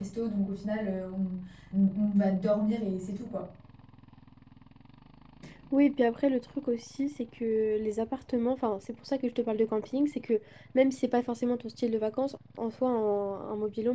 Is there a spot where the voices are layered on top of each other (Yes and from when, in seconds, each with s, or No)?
No